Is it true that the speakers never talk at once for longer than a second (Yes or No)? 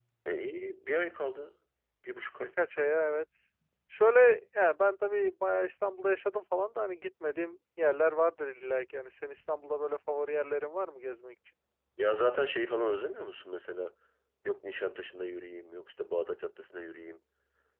Yes